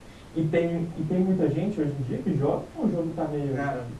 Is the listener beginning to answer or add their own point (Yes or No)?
Yes